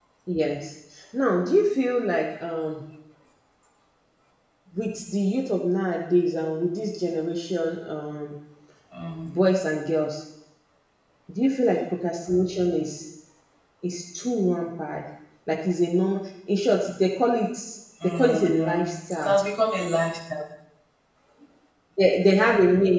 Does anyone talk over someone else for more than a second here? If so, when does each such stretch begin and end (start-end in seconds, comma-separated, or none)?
18.0-19.3